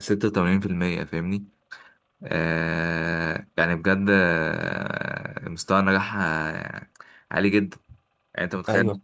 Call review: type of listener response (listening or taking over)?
listening